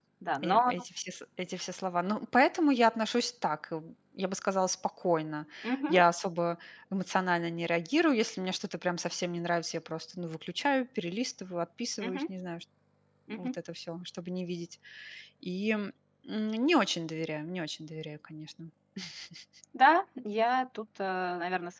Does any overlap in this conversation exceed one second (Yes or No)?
No